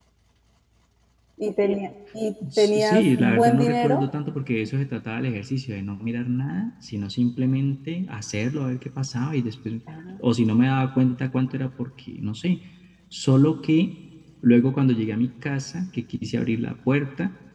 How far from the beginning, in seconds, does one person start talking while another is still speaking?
2 s

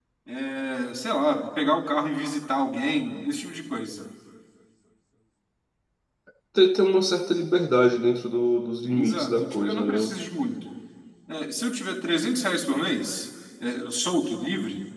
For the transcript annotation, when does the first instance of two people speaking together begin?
9 s

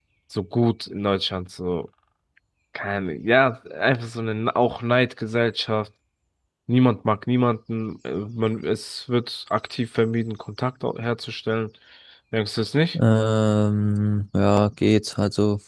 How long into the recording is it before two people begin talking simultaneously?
none

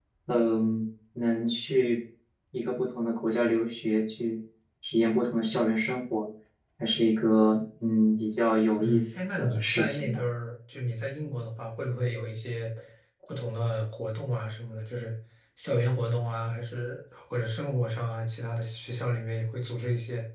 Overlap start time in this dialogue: 9 s

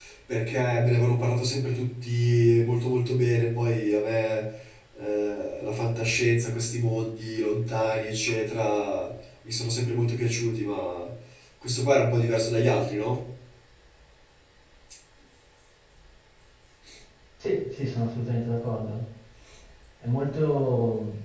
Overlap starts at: none

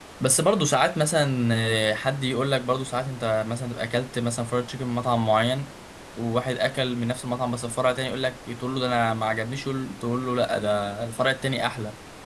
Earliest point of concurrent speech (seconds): none

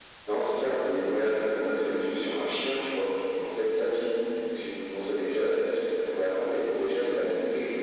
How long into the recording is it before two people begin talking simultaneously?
none

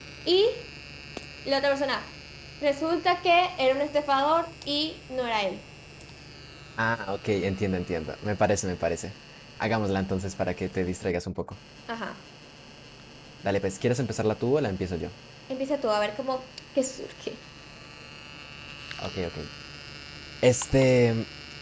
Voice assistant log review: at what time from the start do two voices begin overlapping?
none

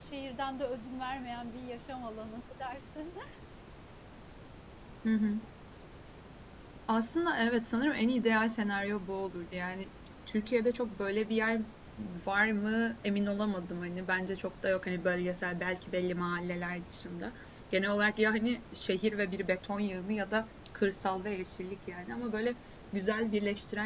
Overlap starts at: none

